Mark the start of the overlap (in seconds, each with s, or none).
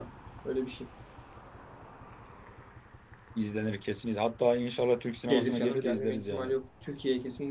5.3 s